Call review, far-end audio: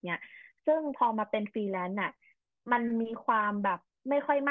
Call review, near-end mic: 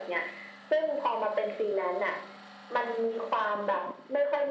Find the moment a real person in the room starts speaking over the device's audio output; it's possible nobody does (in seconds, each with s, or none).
none